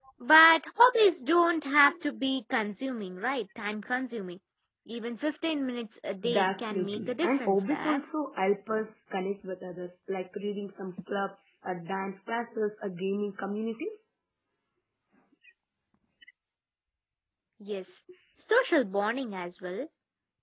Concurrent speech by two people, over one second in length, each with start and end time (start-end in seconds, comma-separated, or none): 6.3-8.0